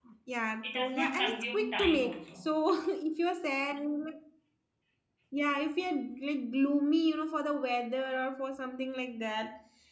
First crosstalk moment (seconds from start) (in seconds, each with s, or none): 0.6 s